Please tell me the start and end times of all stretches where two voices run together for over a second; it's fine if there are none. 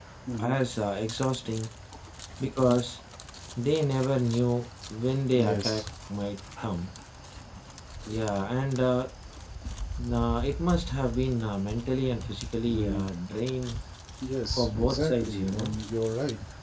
14.5-15.7

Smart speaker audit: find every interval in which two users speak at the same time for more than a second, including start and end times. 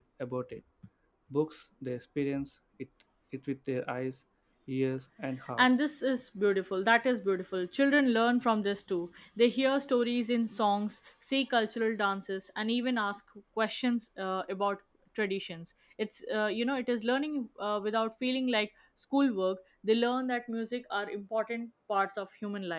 none

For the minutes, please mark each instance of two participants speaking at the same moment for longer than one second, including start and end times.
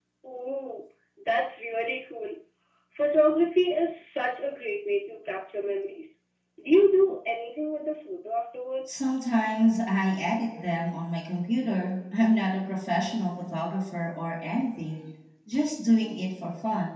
none

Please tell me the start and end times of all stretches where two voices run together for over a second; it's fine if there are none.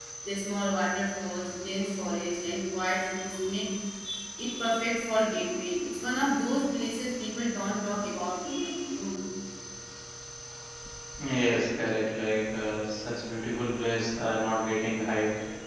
none

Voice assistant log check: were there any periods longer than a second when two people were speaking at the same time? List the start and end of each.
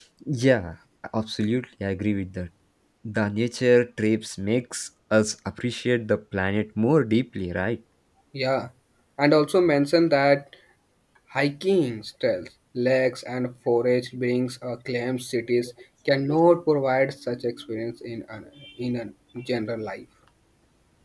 none

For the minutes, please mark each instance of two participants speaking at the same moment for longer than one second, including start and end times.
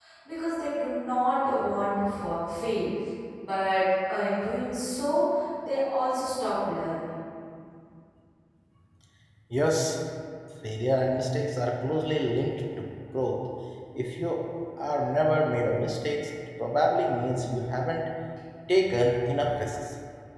none

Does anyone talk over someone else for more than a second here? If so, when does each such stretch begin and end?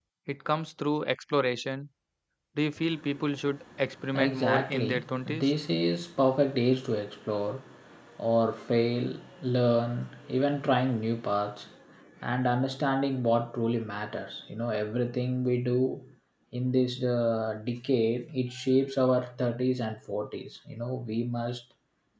4.1-5.5

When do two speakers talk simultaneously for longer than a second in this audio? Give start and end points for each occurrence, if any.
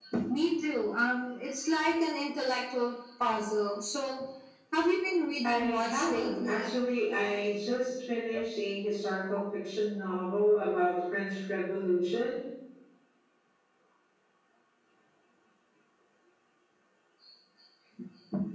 5.4-6.7

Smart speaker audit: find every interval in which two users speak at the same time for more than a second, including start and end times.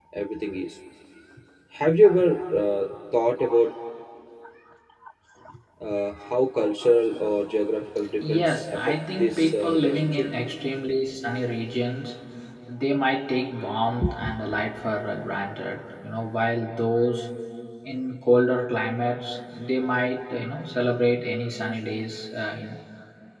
8.2-10.3

